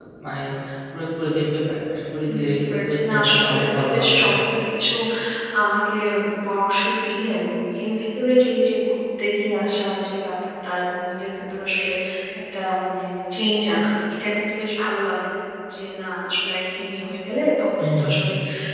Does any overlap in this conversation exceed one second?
Yes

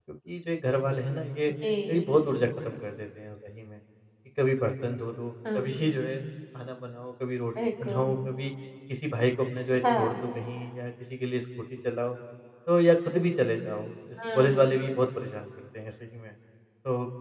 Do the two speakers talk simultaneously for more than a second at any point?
No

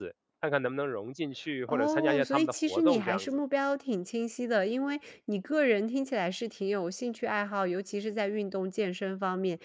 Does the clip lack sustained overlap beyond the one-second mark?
No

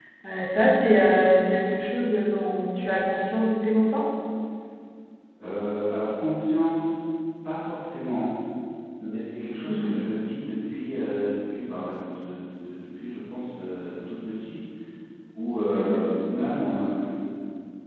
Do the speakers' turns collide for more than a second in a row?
No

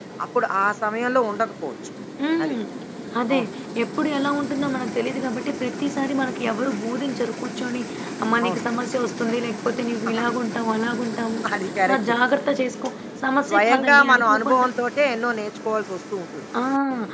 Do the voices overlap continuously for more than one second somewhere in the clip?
Yes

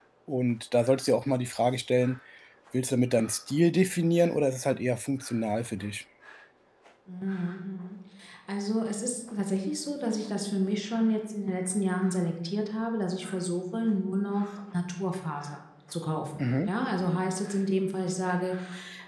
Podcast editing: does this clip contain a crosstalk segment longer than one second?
No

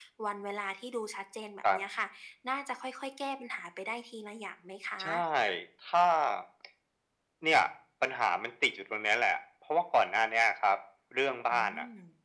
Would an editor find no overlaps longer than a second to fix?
Yes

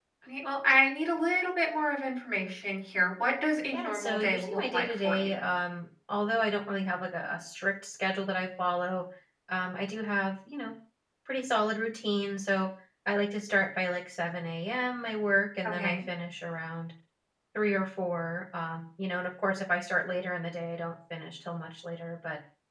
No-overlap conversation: No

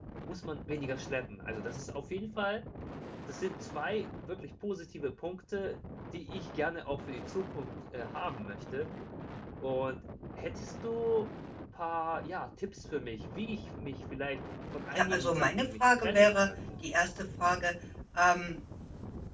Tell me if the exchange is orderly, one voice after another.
No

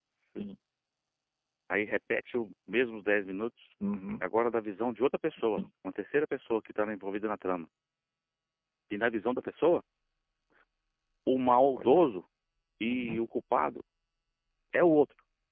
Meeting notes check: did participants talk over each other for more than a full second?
No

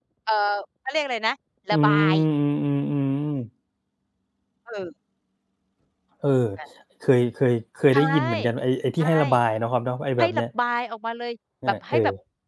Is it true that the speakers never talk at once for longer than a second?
Yes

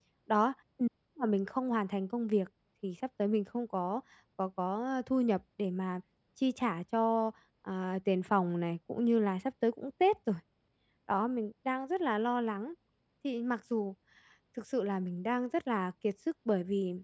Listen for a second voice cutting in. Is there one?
No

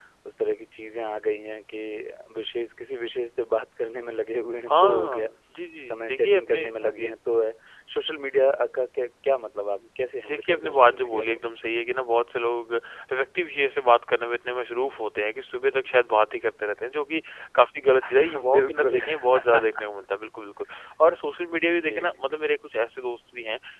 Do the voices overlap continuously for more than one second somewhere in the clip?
Yes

